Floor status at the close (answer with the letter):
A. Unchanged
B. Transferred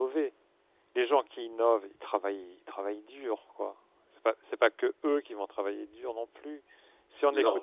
B